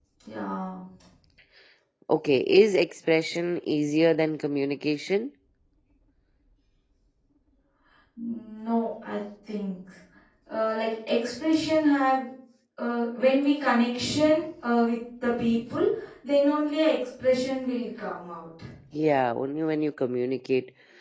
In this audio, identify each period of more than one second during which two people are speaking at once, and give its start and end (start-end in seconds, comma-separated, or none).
none